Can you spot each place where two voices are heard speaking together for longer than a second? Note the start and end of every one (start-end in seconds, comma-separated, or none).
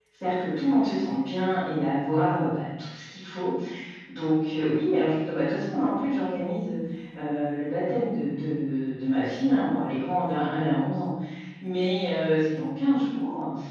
none